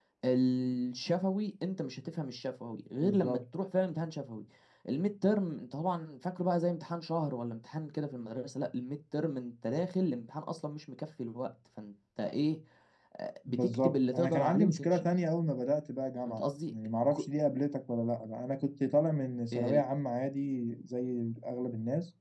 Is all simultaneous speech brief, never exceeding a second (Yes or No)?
No